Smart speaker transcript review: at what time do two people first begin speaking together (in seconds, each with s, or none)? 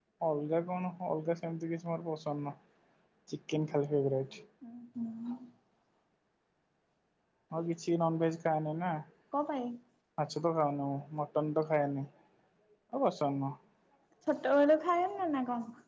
none